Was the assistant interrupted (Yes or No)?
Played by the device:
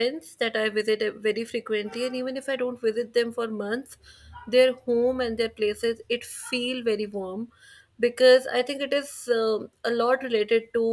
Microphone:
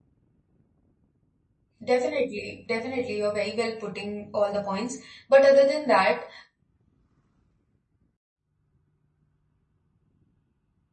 Yes